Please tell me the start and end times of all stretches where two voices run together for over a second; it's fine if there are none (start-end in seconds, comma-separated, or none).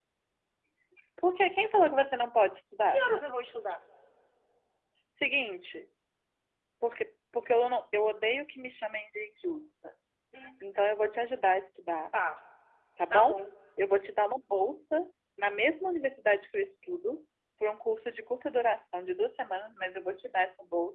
none